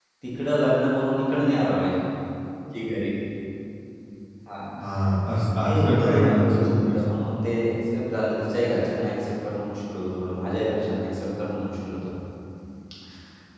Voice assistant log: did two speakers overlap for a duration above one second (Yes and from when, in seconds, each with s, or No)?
Yes, from 5.5 s